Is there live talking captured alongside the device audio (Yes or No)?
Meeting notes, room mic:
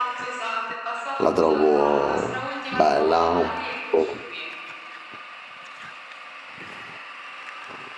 Yes